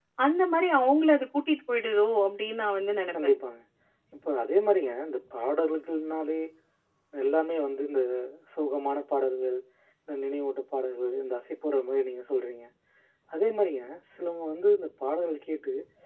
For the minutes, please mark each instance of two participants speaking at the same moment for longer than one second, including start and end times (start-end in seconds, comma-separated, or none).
none